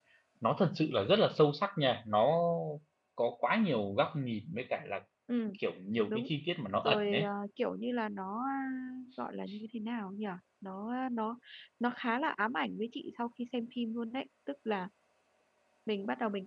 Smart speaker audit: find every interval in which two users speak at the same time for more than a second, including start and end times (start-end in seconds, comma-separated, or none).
none